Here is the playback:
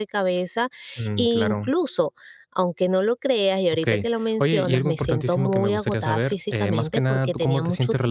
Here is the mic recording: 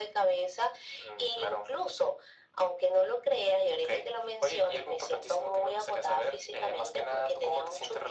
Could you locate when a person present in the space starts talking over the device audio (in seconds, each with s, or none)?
none